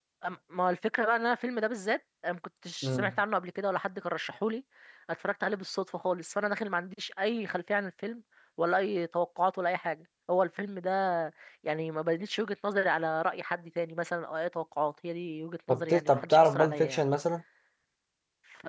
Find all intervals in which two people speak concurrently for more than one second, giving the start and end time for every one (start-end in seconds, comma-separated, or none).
15.7-17.0